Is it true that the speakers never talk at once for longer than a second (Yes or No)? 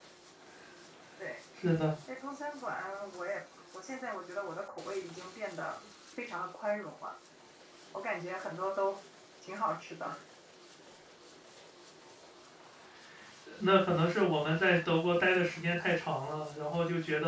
Yes